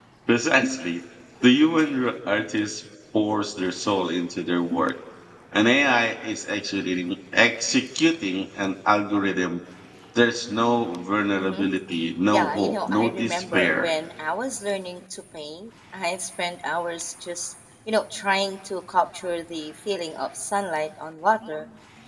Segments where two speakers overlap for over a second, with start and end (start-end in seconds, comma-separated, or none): 12.3-13.9